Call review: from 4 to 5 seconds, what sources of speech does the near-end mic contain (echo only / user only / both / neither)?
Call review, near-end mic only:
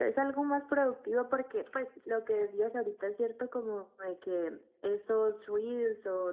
user only